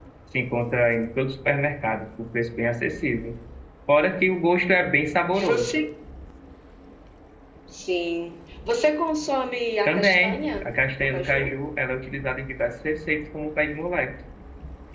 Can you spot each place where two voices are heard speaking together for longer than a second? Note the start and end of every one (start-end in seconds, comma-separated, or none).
9.9-11.5